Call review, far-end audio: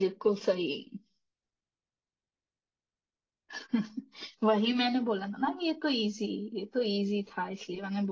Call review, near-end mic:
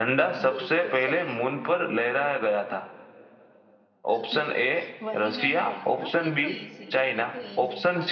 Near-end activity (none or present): present